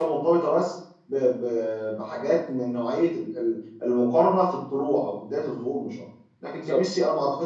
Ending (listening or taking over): listening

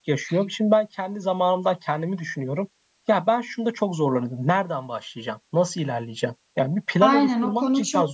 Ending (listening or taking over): taking over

